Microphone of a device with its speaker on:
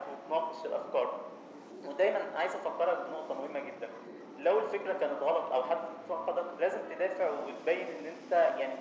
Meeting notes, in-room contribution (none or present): none